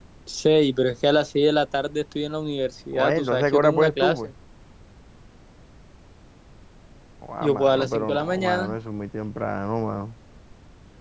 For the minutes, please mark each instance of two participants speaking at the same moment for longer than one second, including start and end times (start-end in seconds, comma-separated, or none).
2.9-4.2, 7.4-8.8